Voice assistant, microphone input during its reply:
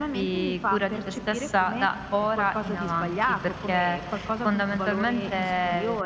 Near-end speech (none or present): none